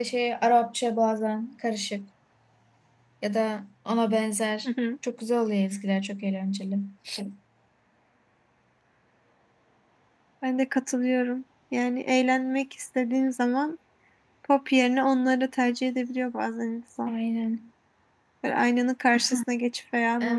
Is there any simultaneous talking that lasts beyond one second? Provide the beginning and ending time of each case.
none

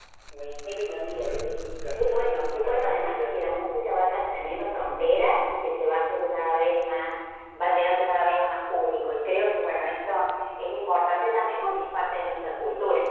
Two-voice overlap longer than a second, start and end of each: 1.9-3.5

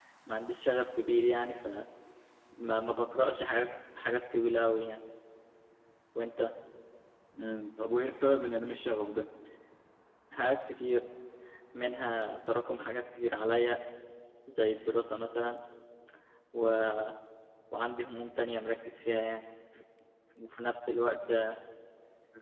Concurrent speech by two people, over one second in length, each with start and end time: none

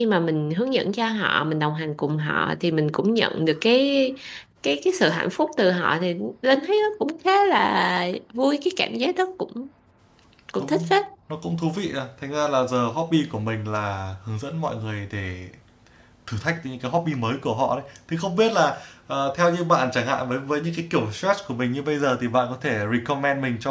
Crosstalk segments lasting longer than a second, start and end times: none

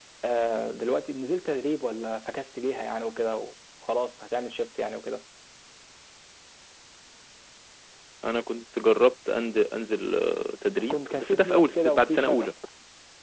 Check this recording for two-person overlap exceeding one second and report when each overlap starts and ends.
10.9-12.5

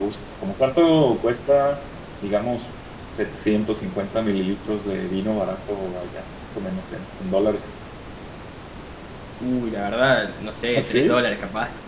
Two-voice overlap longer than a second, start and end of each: none

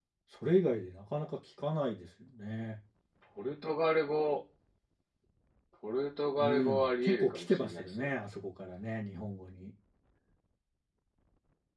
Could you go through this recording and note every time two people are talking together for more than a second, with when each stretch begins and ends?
6.4-8.1

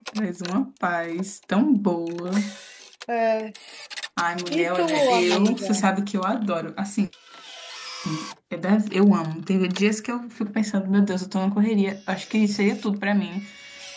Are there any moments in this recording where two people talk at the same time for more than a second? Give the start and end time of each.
4.5-5.8

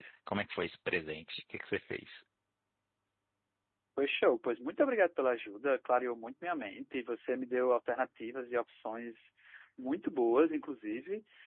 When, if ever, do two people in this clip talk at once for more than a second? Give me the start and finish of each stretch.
none

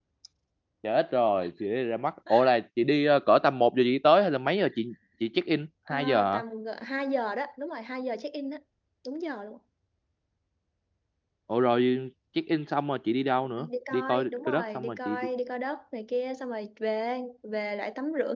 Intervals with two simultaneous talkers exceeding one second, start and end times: 13.6-15.3

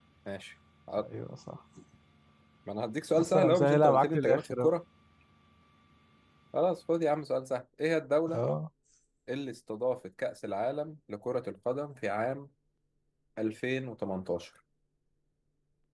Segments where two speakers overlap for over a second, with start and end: 3.2-4.7

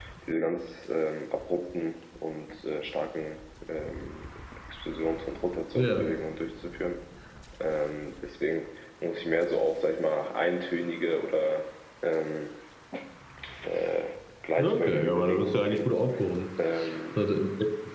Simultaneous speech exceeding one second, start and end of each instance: 14.6-15.8

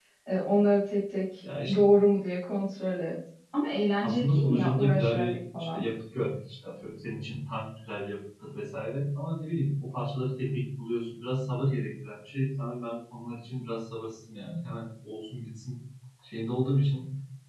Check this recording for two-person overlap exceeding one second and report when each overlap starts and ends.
4.0-5.9

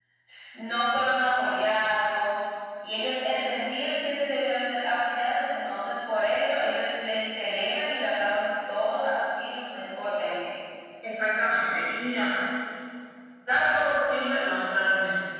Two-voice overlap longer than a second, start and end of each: none

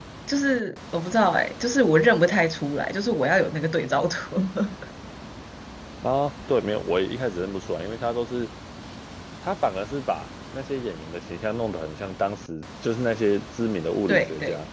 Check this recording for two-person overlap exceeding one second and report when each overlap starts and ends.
none

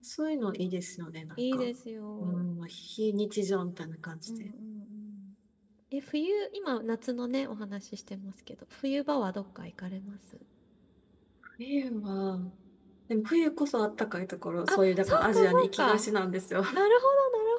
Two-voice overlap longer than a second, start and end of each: 14.7-16.0

